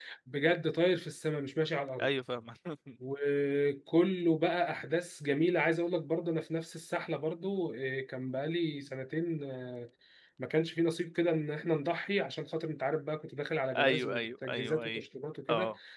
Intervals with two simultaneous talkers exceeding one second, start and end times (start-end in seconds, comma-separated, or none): 13.8-15.0